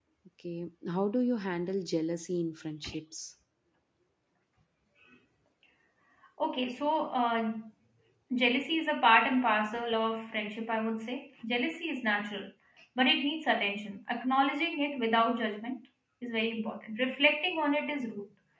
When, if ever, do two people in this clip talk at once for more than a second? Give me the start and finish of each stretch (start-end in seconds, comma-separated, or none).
none